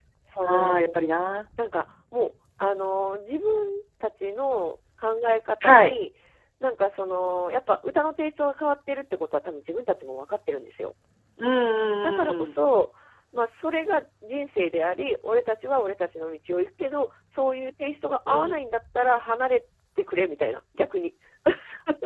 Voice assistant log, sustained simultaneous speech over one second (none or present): none